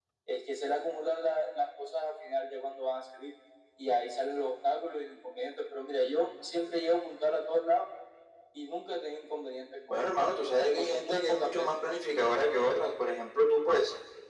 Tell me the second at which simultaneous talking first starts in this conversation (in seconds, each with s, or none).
9.9 s